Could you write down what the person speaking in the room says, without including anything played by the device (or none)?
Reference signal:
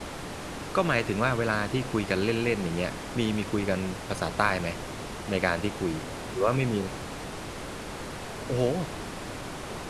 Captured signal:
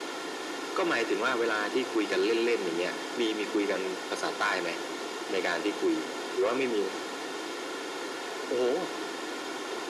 none